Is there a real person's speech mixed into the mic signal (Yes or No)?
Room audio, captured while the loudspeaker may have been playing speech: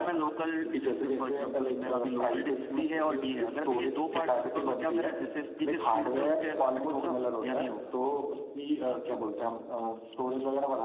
No